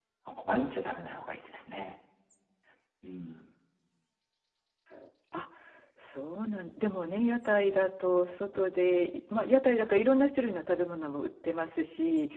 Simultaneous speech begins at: none

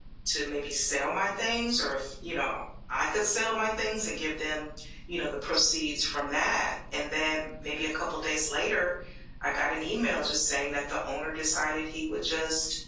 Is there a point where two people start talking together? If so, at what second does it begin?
none

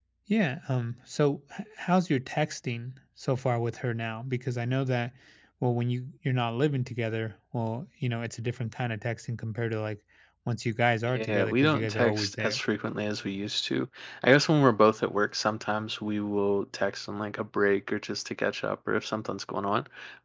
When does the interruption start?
11.1 s

